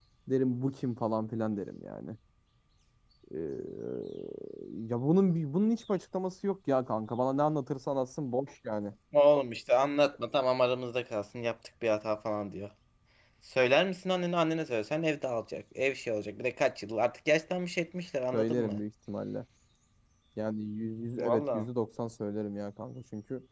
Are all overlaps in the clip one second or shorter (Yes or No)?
Yes